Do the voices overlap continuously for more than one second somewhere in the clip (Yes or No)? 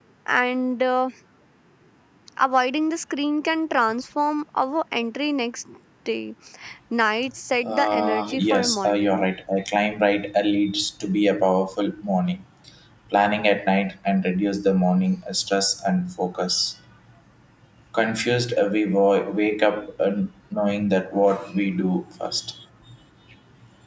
Yes